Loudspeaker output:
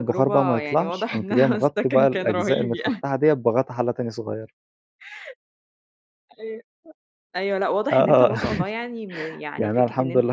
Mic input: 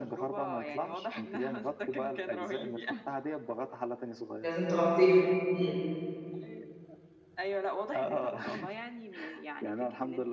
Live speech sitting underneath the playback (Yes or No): No